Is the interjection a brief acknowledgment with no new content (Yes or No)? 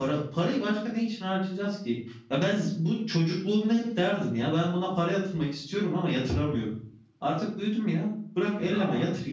No